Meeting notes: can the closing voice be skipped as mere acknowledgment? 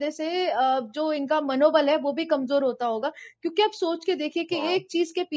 Yes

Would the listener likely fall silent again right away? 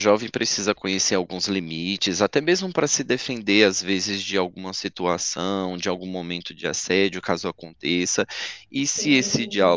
Yes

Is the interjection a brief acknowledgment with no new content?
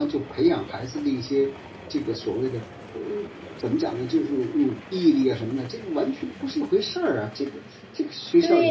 No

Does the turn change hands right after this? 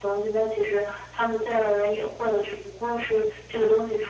No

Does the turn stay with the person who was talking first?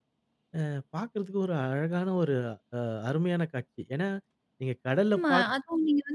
No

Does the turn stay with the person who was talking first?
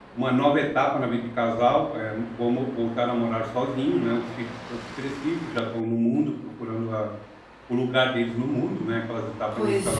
Yes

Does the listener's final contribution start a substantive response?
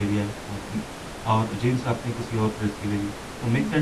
No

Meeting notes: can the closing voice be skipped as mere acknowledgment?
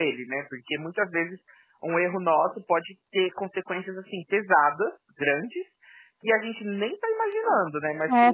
No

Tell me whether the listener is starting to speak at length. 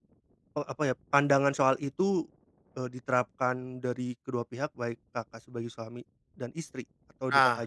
Yes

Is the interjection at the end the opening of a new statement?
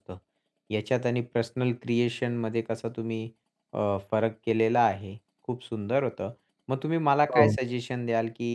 No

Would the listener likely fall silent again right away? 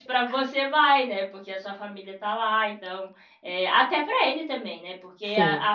Yes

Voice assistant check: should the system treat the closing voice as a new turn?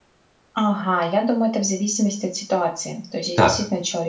No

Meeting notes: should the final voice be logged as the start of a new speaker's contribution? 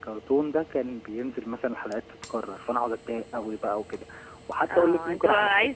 Yes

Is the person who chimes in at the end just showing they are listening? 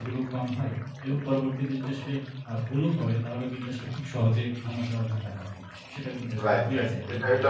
No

